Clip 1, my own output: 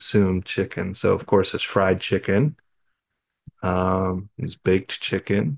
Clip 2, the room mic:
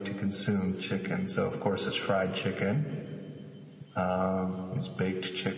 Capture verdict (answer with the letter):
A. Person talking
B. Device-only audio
B